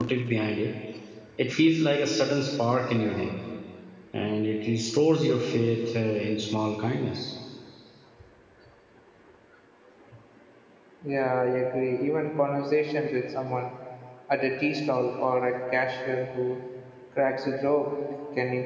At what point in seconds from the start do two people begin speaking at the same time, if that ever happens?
none

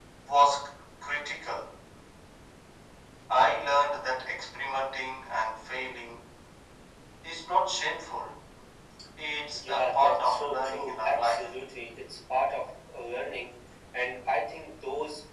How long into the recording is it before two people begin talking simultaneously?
9.5 s

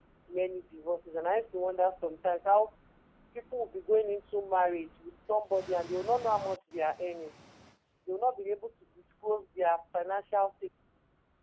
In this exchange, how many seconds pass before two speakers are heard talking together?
none

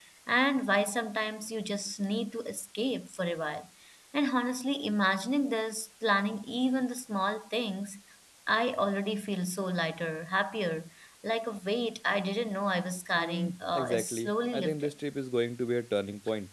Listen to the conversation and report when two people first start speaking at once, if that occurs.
13.2 s

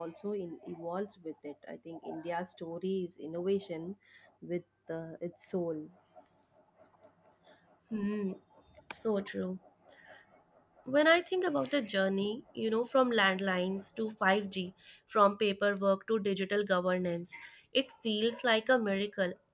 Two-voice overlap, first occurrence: none

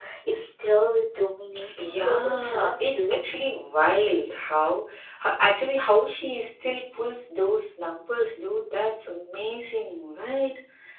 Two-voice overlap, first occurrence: 1.7 s

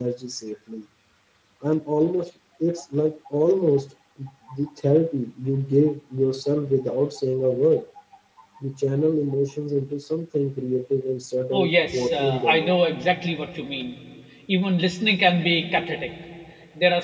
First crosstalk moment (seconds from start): 11.5 s

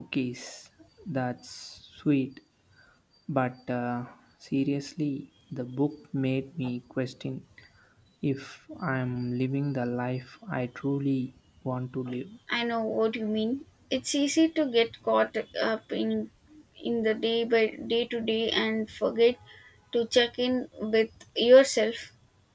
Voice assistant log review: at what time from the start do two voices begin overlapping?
none

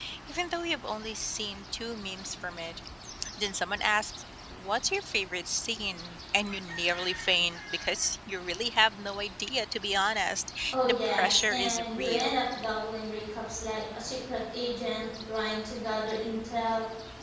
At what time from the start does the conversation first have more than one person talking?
10.7 s

